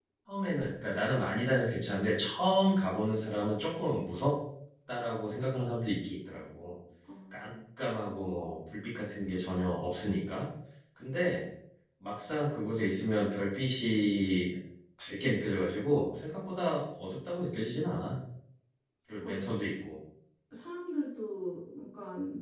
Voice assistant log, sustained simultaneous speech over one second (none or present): none